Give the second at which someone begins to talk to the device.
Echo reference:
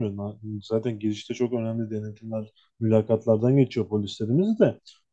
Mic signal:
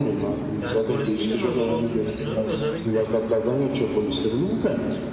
0.6 s

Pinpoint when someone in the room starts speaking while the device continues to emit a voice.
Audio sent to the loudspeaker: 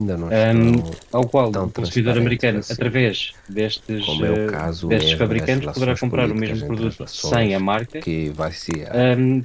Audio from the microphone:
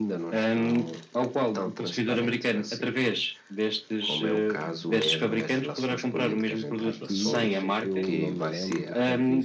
6.8 s

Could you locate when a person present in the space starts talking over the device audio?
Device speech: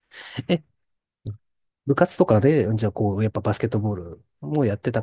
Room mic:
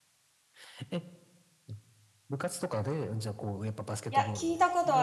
4.1 s

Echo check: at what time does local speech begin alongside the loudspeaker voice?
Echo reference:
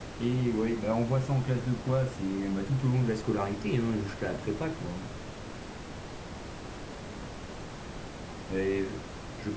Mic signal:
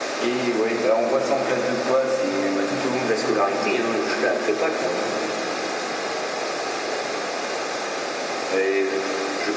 none

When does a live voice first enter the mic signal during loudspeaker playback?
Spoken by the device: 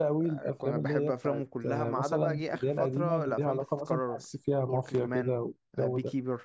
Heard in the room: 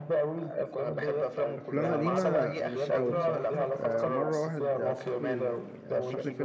1.6 s

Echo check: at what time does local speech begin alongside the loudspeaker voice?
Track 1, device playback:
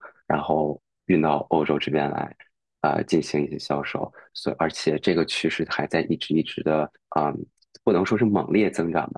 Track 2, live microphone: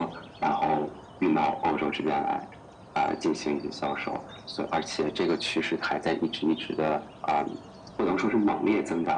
none

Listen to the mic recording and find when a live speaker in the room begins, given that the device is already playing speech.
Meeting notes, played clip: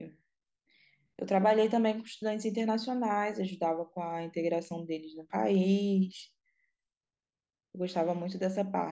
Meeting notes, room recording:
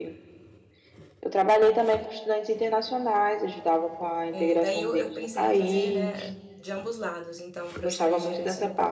4.3 s

